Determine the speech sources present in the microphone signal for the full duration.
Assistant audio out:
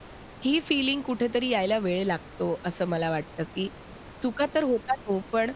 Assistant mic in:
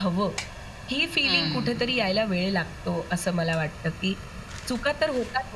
both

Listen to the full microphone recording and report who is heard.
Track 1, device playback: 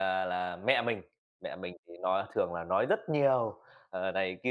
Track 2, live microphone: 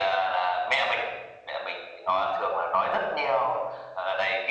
echo only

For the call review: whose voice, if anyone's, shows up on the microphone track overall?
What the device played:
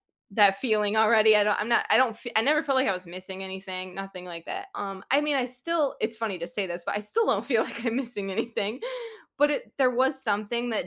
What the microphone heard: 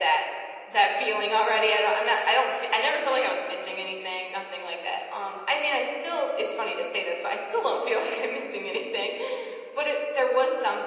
echo only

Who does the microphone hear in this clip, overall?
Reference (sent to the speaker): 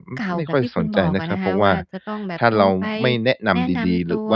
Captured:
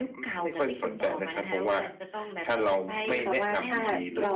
both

